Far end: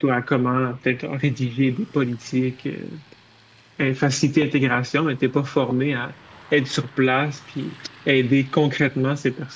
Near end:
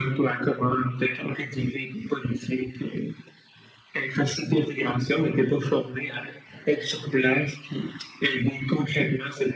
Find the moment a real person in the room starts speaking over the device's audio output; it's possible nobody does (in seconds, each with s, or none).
none